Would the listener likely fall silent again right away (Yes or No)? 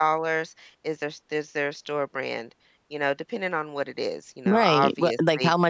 No